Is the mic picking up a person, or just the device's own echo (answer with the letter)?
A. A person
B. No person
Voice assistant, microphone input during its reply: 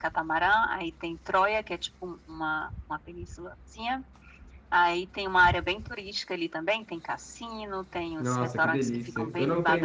A